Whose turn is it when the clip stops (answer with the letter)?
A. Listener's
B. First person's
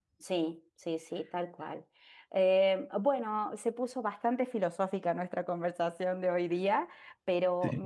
B